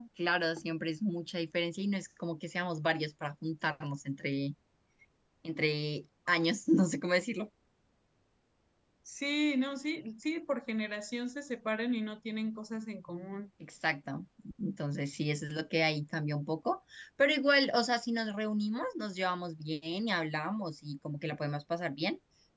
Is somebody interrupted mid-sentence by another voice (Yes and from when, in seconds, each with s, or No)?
No